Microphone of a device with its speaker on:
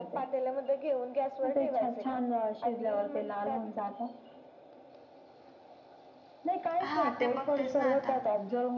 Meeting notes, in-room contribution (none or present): present